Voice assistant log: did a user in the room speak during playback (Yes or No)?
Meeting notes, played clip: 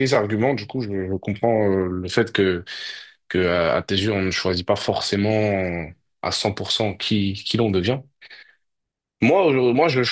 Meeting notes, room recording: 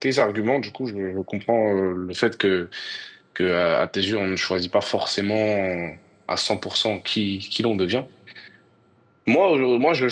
No